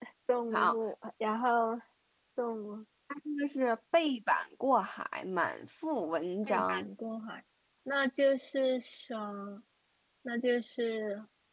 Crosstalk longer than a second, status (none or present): none